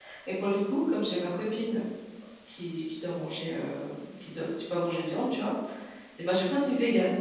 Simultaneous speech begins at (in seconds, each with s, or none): none